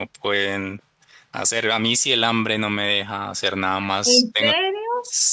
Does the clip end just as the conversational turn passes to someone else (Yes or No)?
No